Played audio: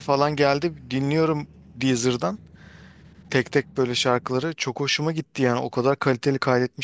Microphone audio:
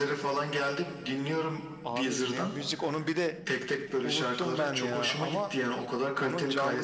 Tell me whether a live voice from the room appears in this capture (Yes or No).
Yes